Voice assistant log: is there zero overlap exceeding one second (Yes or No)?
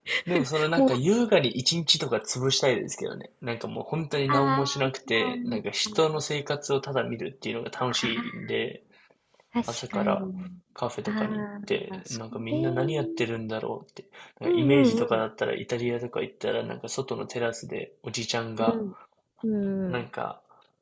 No